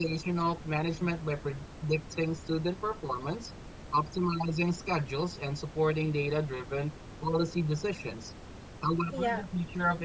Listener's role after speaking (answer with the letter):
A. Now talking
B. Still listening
B